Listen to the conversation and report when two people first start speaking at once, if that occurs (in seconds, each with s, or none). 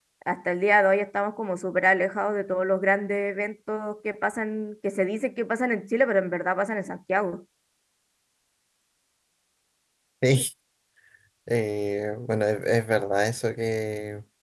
none